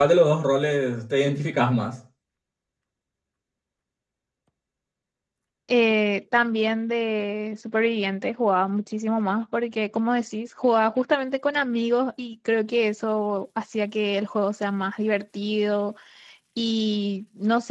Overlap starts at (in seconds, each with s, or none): none